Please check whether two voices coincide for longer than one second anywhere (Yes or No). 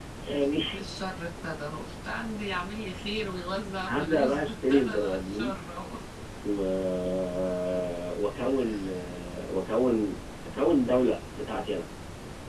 Yes